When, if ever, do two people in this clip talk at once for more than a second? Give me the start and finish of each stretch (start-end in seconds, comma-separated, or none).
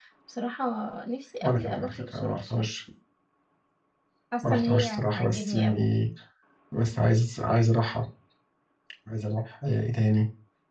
1.4-2.7, 4.4-5.8